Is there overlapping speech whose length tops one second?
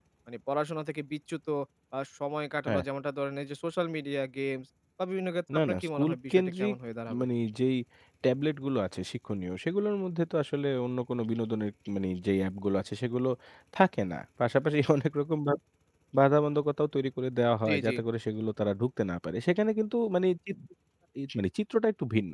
Yes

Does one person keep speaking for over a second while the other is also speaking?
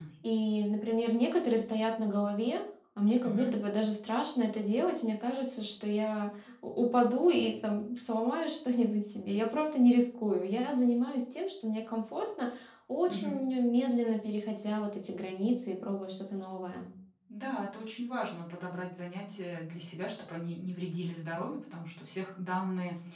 No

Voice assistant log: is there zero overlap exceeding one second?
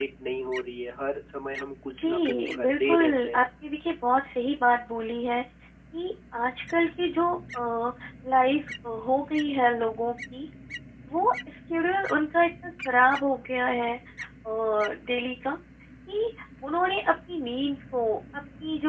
No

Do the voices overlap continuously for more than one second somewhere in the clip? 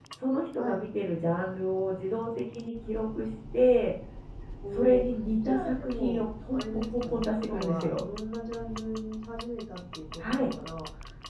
Yes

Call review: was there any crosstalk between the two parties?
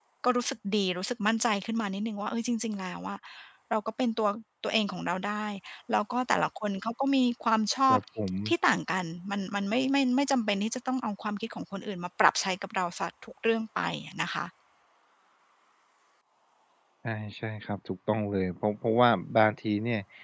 No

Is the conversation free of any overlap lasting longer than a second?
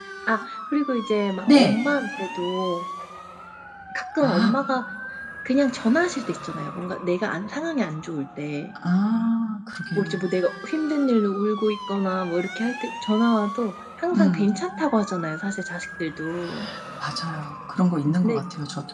Yes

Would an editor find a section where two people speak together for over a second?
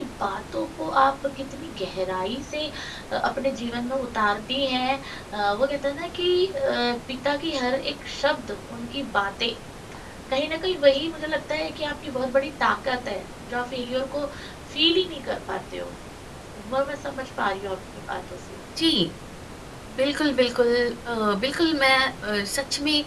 No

